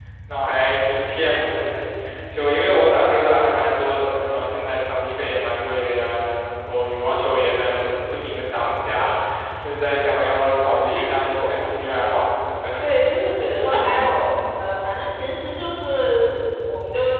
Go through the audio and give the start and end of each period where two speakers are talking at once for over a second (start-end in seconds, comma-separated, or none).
none